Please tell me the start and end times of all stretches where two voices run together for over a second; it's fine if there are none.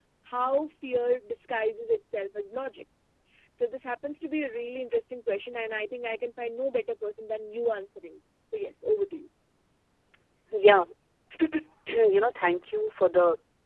none

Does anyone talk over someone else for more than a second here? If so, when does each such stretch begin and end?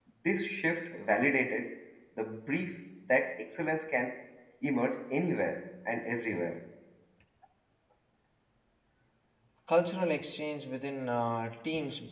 none

